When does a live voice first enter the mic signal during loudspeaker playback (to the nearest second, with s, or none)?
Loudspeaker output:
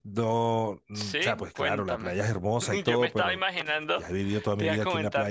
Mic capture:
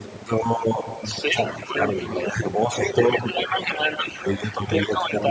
none